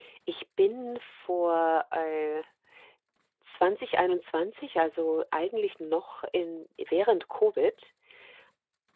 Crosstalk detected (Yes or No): No